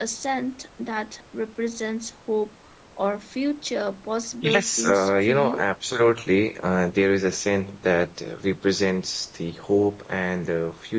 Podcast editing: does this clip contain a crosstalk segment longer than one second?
Yes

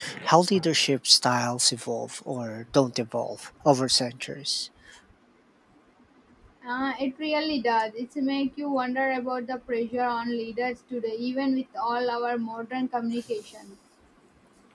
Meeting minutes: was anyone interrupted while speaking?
No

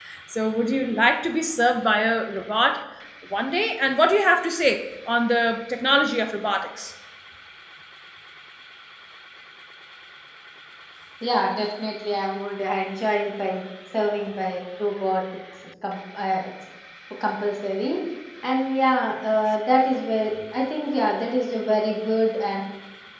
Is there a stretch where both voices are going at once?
No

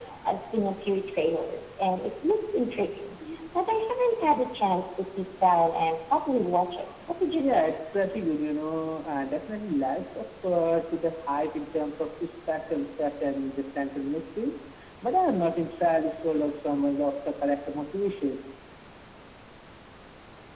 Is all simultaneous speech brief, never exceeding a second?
Yes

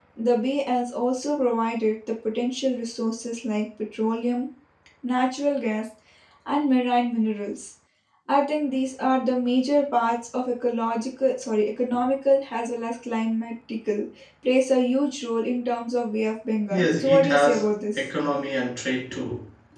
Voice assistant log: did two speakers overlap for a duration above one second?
Yes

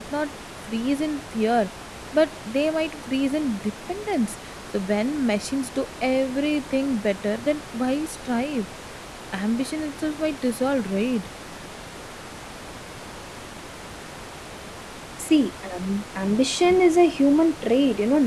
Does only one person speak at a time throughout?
Yes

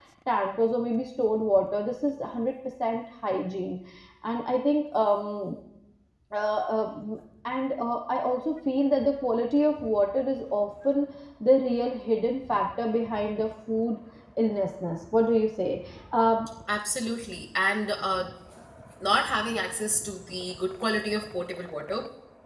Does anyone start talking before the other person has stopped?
No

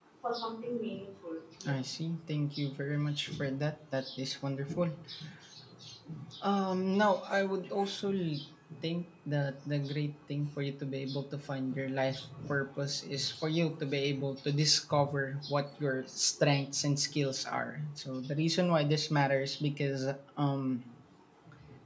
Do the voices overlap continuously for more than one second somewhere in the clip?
No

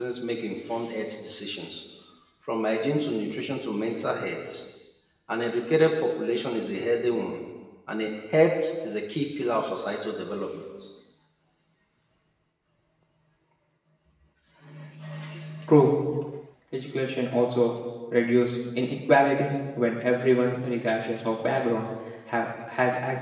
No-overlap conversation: Yes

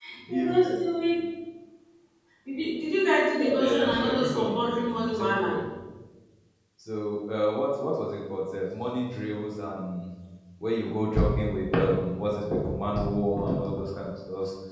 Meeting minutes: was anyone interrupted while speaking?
Yes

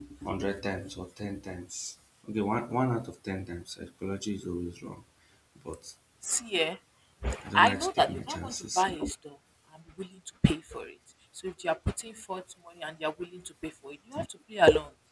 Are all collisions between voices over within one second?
No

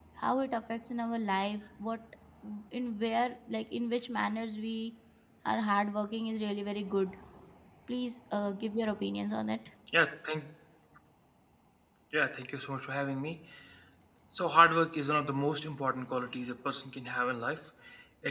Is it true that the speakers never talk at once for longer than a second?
Yes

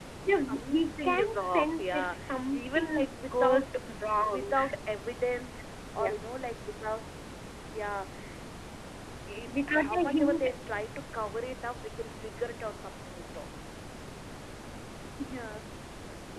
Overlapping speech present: Yes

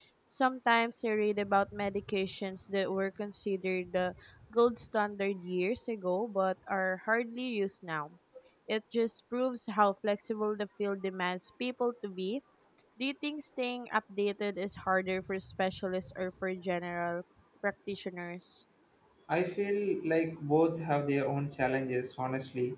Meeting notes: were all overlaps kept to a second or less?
Yes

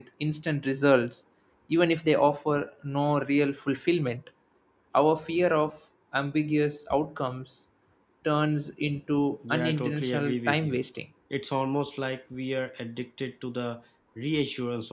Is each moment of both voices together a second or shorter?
No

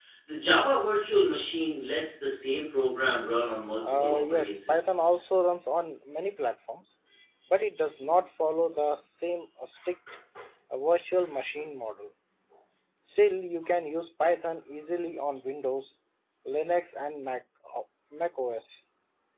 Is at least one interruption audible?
Yes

